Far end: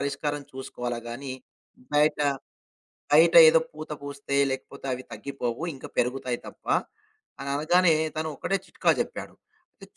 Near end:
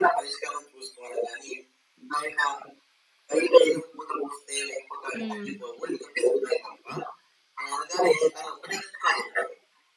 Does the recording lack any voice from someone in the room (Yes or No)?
No